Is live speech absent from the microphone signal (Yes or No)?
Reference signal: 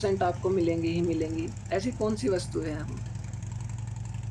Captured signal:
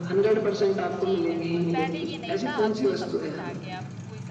No